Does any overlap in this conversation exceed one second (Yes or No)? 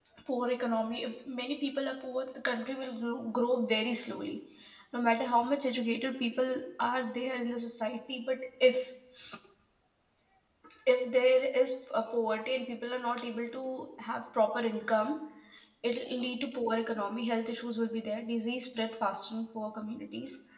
No